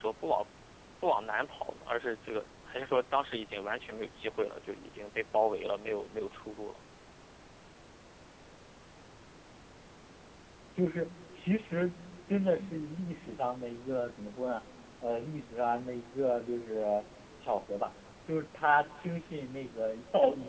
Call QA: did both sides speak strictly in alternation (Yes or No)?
Yes